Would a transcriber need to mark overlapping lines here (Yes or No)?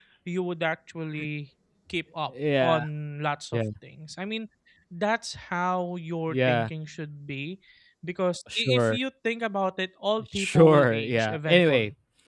Yes